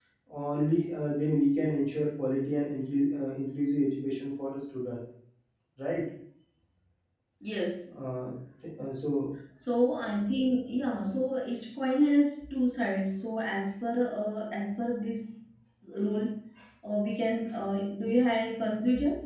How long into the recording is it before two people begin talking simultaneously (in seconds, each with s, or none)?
none